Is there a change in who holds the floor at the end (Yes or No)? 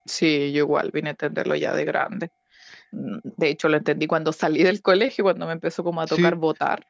Yes